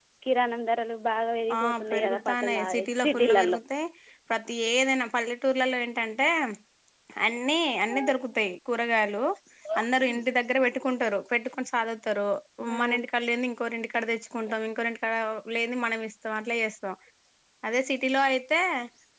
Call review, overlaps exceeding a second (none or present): present